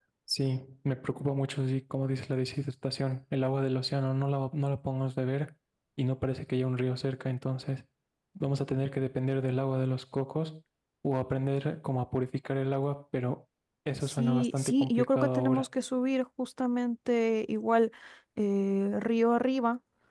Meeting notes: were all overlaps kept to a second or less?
No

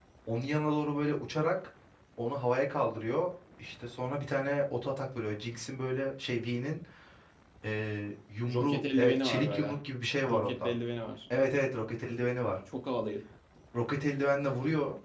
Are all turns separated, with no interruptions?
No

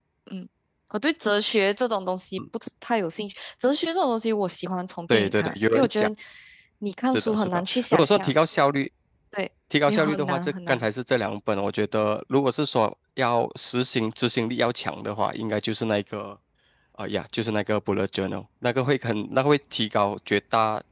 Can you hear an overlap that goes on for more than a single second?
Yes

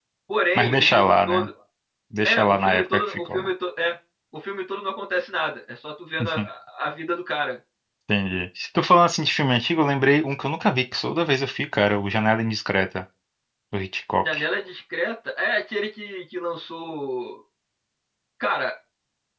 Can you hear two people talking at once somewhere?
Yes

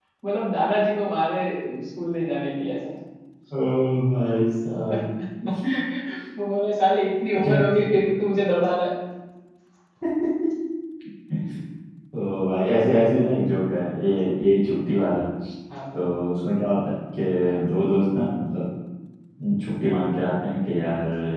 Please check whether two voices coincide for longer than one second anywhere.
No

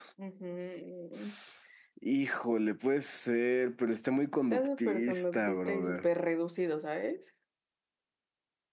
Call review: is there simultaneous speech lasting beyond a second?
Yes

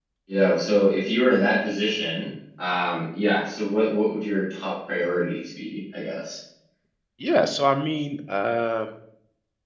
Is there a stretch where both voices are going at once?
No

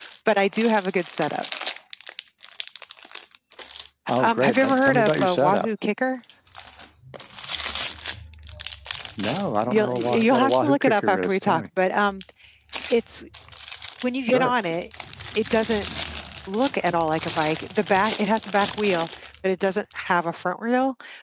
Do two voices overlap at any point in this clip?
Yes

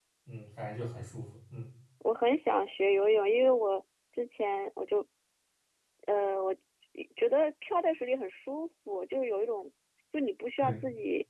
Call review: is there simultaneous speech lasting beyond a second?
No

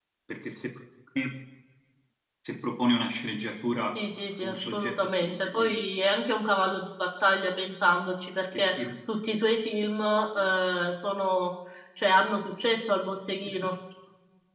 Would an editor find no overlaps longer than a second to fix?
No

